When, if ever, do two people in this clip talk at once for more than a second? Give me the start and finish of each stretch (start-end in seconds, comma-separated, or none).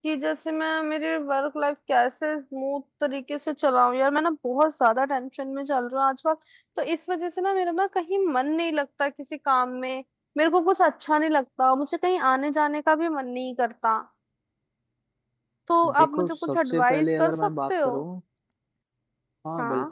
16.0-17.9